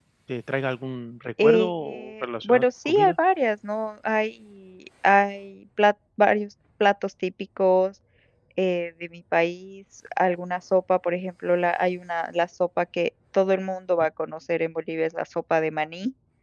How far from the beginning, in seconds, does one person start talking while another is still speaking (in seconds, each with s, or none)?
1.4 s